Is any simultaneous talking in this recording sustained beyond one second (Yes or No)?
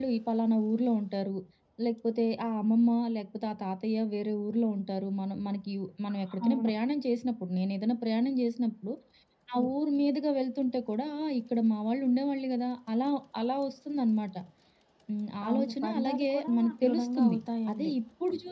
Yes